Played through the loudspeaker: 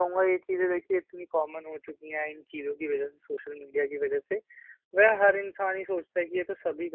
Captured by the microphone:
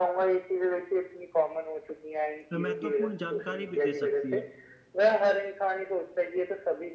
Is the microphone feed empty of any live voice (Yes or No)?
No